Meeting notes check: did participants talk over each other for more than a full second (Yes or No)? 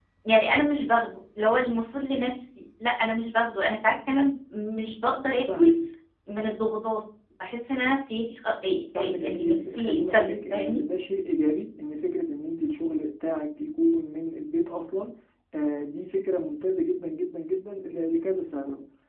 Yes